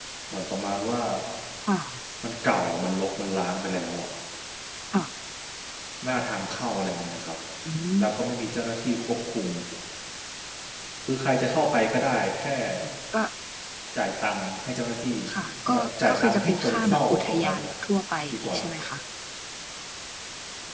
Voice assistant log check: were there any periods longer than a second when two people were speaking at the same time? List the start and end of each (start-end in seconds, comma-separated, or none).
15.7-17.6